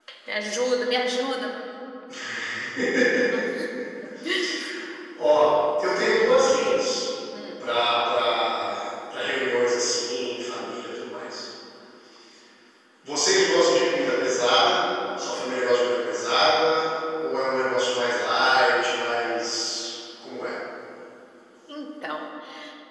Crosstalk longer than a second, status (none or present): none